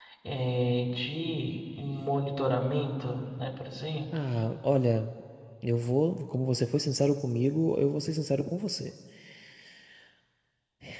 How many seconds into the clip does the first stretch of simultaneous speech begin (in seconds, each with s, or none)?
none